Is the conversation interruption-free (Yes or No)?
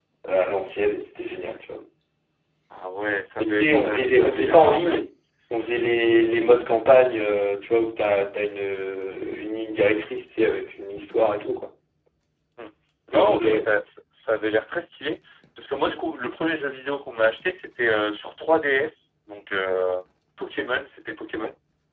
No